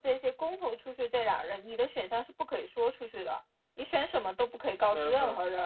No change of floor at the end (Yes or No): Yes